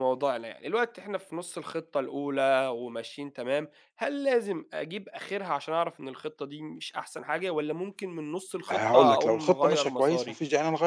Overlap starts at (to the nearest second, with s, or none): 9 s